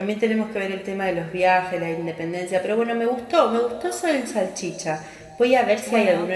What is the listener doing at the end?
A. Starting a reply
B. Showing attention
B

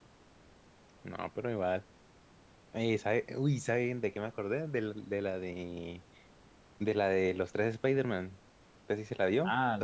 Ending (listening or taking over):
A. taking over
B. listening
A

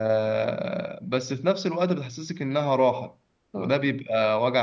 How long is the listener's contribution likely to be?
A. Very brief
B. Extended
A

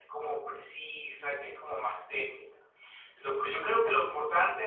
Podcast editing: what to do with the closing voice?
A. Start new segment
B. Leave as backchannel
B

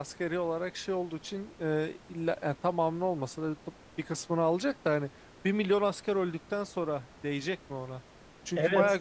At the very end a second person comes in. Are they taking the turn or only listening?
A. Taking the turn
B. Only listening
B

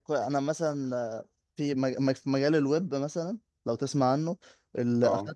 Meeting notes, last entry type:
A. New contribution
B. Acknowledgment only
B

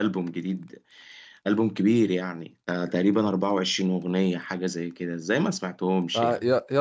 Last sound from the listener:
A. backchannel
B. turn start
B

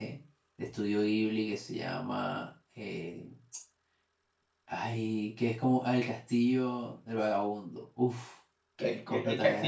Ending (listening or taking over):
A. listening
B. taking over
B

